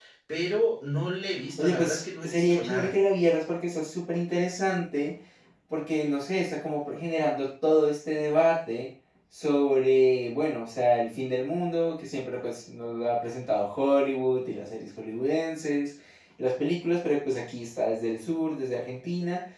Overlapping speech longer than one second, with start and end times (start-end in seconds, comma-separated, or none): 1.6-2.9